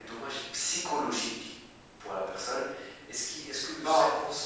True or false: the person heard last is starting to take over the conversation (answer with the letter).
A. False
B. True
A